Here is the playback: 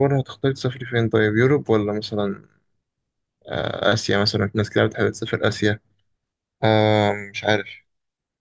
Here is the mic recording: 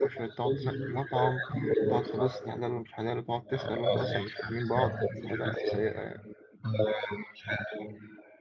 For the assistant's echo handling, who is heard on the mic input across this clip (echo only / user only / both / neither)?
both